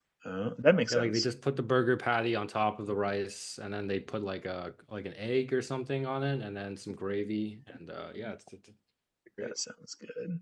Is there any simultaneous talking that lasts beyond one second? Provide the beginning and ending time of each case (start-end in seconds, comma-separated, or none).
none